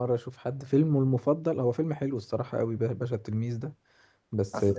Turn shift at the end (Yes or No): No